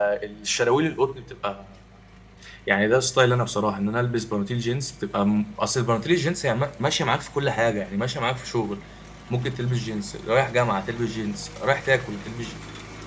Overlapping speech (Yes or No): No